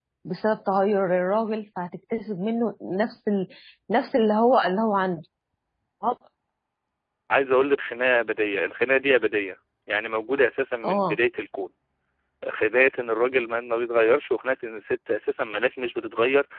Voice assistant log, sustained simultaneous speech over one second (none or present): none